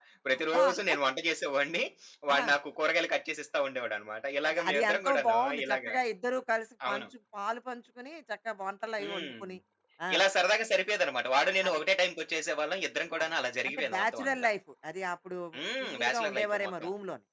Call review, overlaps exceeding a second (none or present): present